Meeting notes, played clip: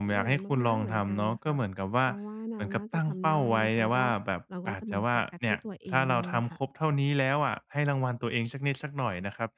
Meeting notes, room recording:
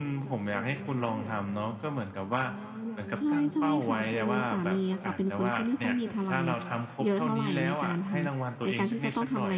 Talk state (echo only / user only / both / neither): both